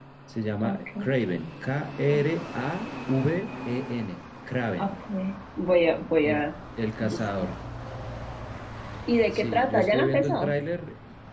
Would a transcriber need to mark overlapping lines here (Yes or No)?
Yes